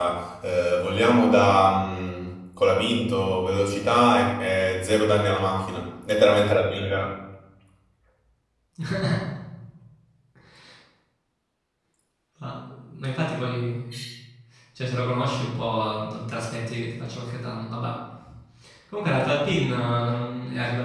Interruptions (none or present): none